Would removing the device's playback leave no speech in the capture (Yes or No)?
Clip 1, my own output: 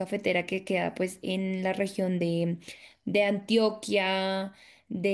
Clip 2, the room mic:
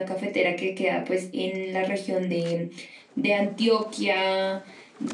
Yes